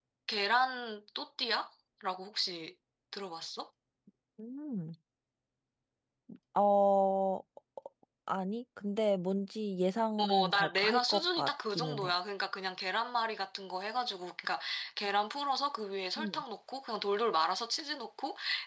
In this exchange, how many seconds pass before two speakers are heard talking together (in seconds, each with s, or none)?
10.2 s